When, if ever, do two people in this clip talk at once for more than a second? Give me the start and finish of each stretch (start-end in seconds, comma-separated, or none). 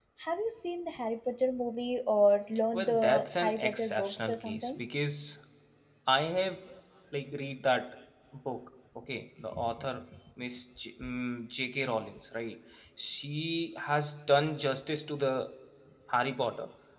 2.7-4.8